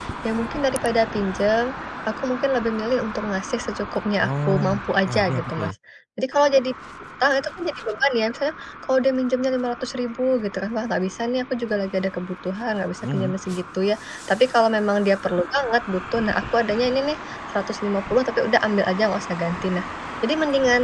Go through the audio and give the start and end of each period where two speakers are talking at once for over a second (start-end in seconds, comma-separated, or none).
4.3-5.7